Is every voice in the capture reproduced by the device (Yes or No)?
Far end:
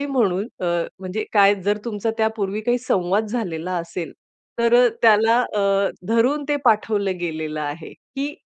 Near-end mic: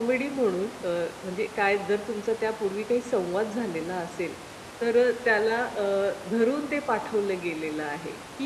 Yes